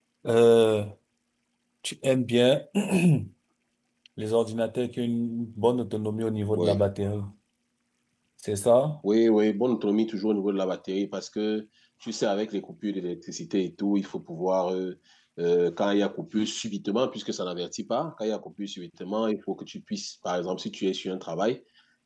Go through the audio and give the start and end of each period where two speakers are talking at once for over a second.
none

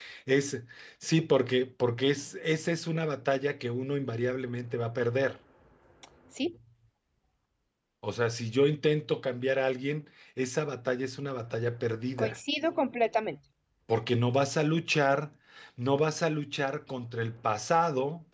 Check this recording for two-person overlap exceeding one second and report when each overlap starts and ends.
none

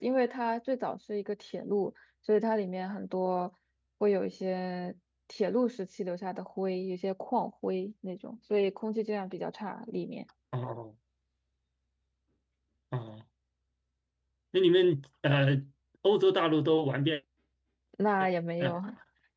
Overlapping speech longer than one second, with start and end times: none

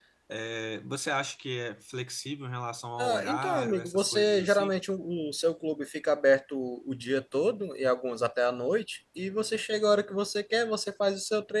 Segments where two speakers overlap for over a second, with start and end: 3.0-4.7

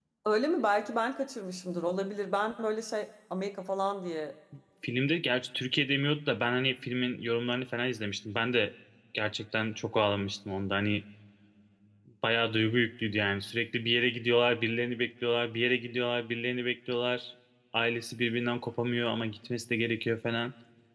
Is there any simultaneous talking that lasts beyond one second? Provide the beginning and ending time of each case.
none

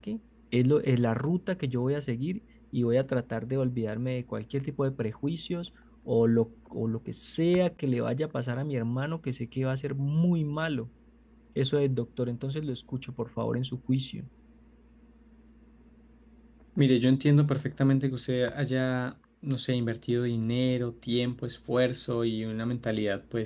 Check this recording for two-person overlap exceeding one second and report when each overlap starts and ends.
none

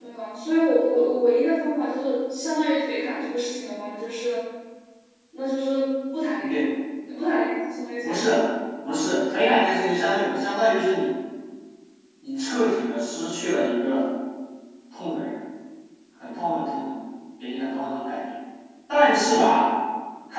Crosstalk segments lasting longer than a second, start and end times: none

